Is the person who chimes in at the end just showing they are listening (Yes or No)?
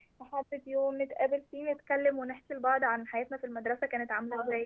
No